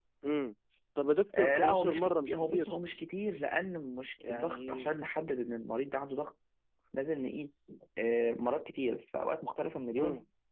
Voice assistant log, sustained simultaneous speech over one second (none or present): present